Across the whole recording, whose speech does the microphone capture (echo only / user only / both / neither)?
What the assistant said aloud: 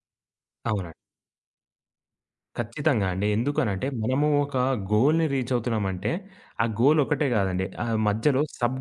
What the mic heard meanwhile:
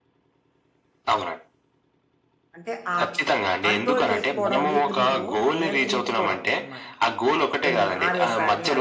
both